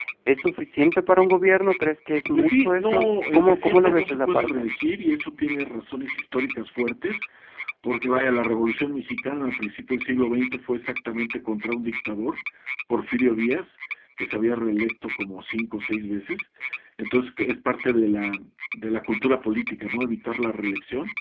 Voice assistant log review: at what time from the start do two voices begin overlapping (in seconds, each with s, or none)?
2.3 s